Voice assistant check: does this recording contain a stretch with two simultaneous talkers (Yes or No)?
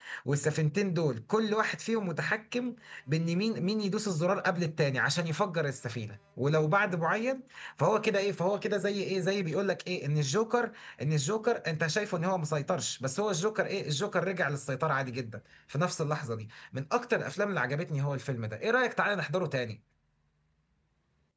No